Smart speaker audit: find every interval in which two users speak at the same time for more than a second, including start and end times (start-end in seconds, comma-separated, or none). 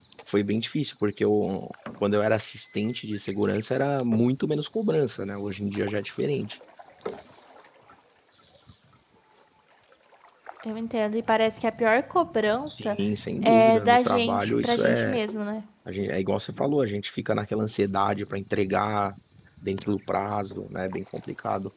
13.4-15.2